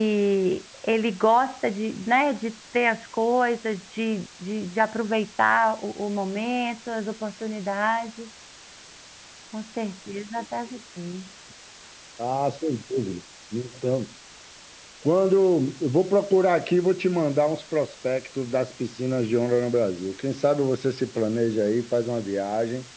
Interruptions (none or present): none